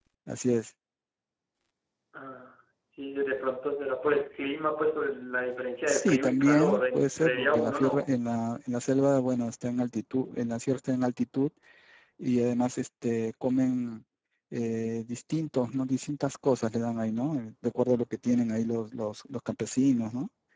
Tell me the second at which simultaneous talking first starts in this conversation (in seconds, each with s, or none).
5.9 s